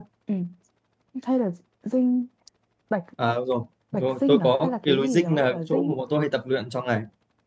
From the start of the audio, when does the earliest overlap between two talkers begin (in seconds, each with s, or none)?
3.9 s